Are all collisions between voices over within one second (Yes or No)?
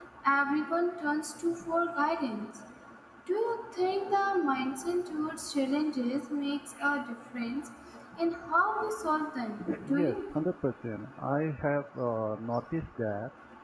Yes